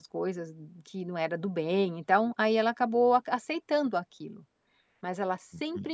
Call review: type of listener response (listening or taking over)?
listening